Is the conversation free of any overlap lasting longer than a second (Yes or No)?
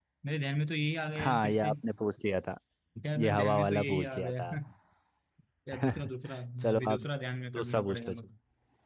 No